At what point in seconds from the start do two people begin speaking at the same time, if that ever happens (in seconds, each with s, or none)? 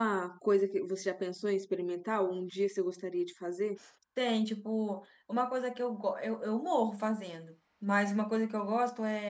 none